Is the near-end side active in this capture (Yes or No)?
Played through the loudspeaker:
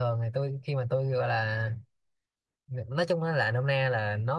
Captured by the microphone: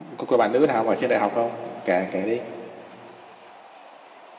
Yes